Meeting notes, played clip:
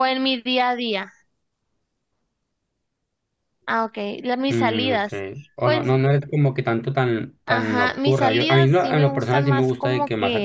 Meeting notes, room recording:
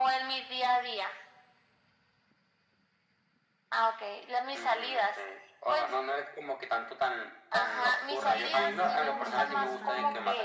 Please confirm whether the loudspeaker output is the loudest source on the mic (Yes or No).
Yes